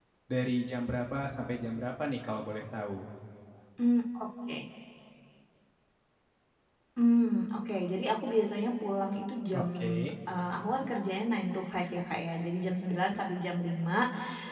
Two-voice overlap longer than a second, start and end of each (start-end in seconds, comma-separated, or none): none